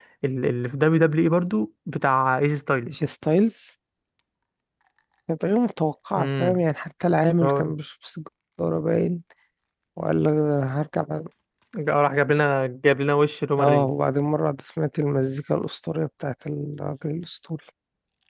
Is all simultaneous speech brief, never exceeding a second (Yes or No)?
Yes